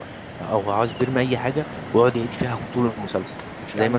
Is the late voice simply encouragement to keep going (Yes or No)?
Yes